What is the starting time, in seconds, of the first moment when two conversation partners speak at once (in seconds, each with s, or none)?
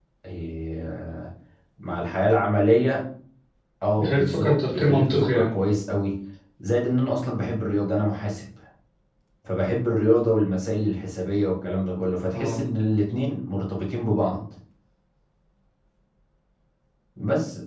4.0 s